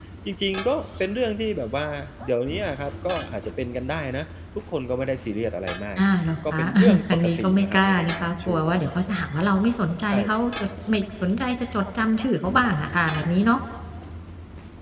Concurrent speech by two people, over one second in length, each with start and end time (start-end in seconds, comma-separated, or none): 6.5-8.7